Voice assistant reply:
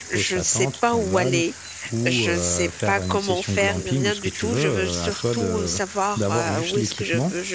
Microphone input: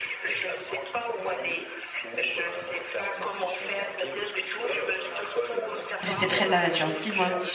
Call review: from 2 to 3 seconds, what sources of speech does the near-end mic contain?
echo only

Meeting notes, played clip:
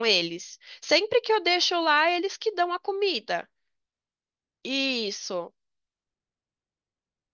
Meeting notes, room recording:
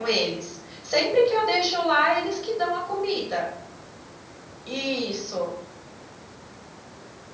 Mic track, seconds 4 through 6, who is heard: echo only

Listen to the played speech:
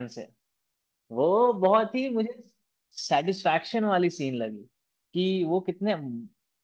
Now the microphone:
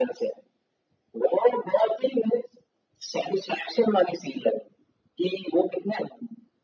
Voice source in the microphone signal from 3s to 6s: echo only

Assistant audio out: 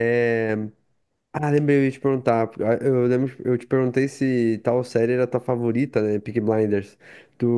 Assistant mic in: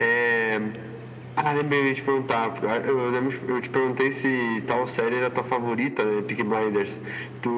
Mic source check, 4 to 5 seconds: echo only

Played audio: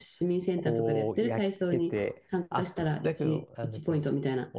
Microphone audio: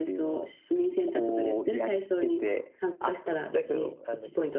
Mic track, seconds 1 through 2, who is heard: echo only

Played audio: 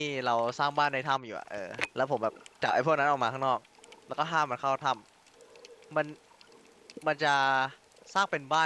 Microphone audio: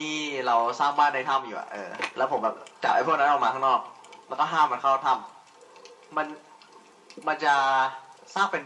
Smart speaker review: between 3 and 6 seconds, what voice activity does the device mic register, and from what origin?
echo only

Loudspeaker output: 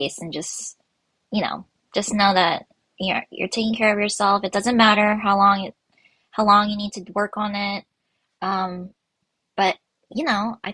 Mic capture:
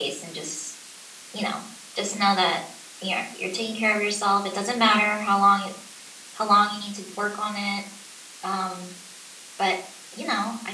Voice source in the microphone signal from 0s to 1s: echo only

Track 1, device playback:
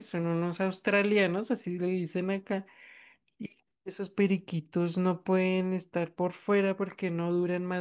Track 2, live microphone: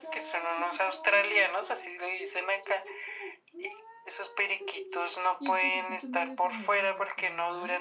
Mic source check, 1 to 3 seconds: both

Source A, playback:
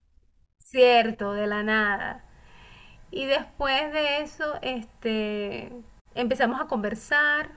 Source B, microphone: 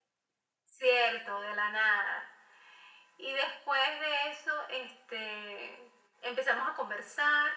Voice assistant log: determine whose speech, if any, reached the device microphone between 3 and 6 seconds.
echo only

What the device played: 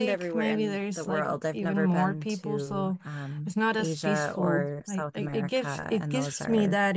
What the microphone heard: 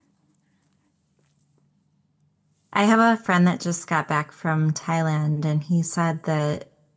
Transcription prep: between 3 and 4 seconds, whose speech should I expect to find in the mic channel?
user only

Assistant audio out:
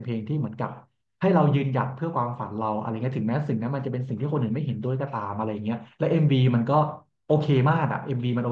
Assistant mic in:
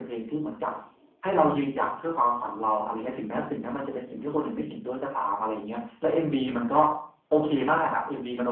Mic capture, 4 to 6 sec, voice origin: echo only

